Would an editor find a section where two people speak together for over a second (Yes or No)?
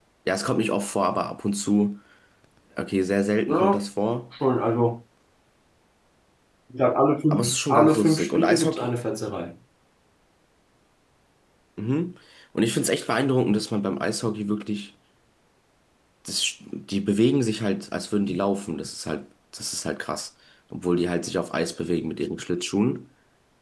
Yes